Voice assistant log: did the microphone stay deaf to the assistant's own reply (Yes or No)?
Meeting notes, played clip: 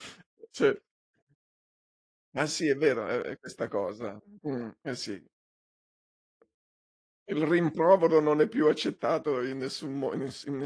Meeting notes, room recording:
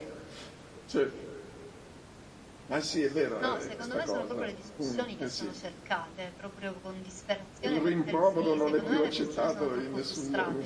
No